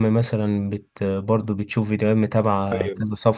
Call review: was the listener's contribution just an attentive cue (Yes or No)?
Yes